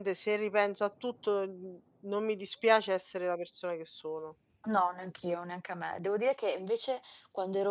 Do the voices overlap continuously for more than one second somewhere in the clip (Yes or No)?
No